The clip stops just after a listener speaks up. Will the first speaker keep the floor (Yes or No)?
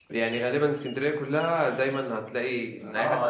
No